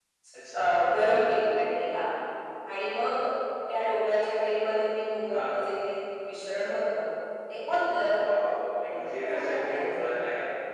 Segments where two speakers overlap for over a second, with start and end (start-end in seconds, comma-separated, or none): 8.8-10.1